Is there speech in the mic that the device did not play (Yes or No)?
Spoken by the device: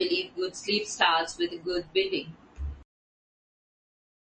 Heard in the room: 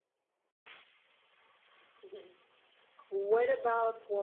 Yes